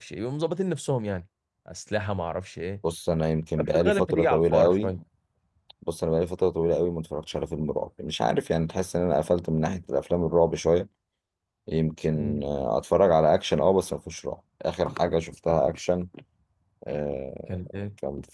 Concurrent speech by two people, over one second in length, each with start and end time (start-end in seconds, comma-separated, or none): 3.6-4.9